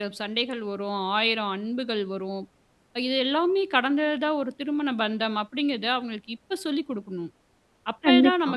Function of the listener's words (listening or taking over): listening